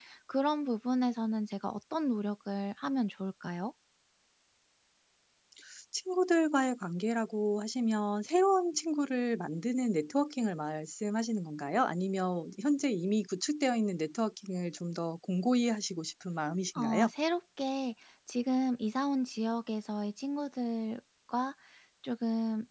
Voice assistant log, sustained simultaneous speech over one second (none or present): none